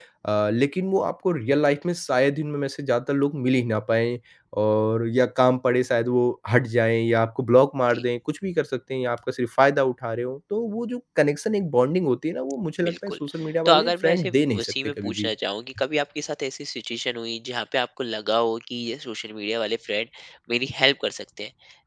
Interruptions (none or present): present